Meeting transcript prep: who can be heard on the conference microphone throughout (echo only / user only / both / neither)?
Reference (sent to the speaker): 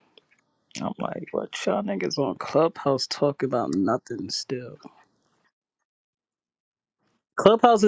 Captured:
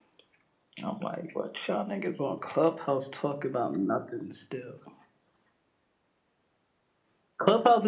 echo only